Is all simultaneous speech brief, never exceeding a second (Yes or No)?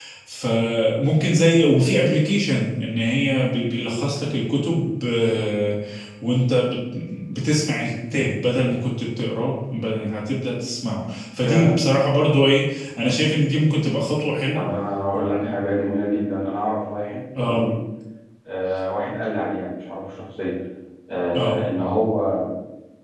Yes